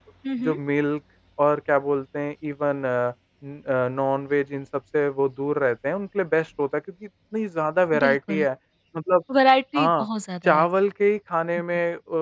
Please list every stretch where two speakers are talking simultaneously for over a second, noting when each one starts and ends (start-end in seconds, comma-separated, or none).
none